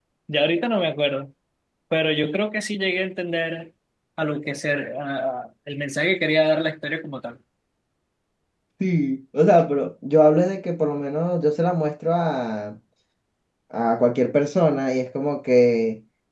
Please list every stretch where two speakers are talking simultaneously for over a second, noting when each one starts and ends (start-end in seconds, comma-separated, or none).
none